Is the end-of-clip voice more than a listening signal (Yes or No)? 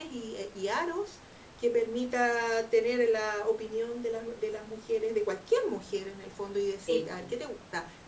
No